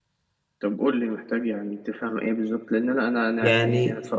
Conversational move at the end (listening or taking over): listening